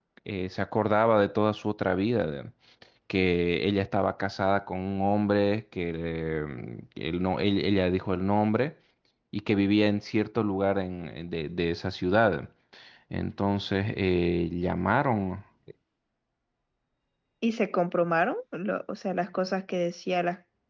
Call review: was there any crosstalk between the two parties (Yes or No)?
No